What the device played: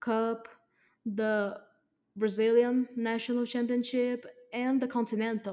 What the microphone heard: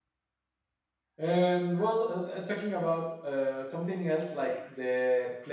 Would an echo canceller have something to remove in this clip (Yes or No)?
No